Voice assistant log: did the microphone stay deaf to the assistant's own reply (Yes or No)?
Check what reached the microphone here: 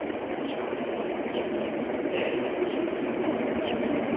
Yes